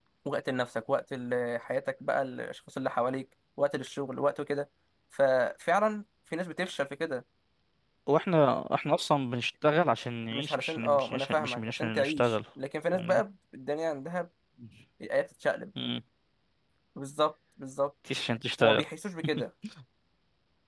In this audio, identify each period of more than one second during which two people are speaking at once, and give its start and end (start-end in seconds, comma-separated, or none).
10.3-12.4